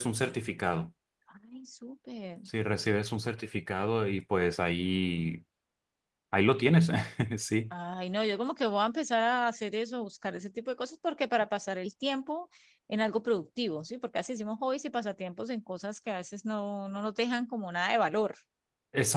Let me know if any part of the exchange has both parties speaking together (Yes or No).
No